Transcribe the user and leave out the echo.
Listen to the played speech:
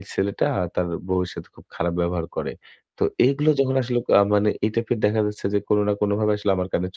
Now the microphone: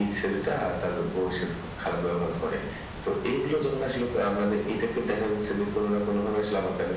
none

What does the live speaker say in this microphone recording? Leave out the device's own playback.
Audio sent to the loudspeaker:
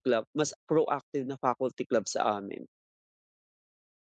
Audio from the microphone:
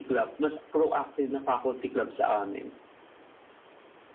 none

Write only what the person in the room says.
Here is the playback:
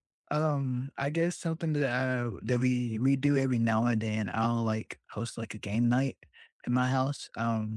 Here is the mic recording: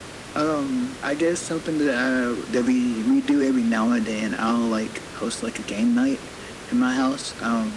none

